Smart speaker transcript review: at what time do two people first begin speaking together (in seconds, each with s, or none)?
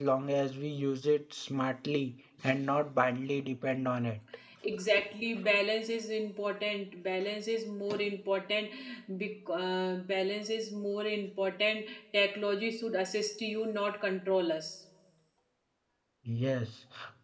none